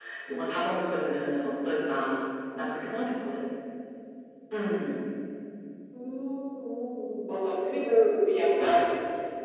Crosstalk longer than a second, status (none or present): none